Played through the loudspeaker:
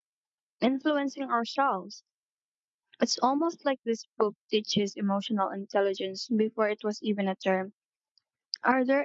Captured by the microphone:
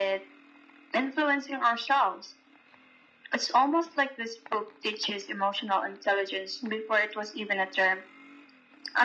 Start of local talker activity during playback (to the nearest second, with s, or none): none